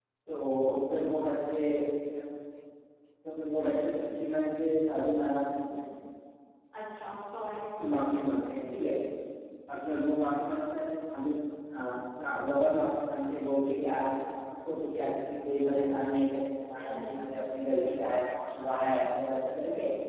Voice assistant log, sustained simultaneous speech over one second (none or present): none